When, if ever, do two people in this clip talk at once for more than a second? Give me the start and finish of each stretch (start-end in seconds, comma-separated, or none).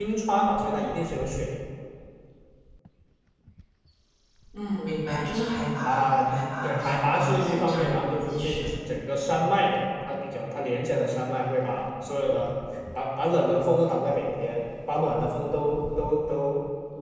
6.6-8.6